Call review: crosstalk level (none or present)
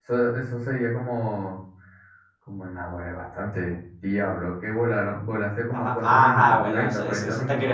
present